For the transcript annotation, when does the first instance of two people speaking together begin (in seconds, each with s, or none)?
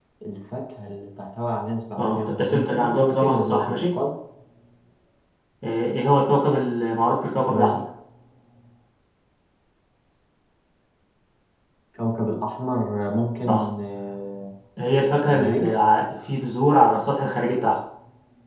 2.0 s